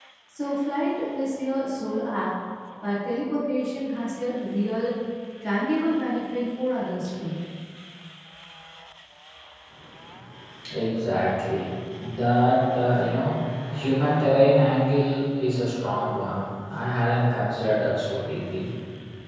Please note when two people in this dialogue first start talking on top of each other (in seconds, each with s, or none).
none